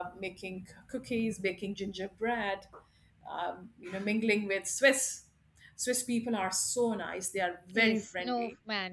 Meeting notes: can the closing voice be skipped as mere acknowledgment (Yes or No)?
No